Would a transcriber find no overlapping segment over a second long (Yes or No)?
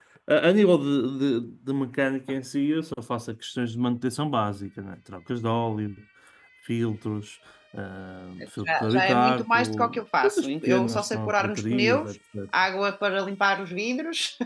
No